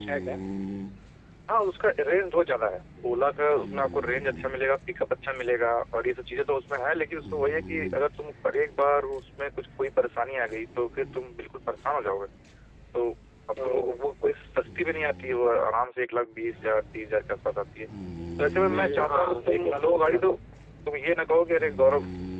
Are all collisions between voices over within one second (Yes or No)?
No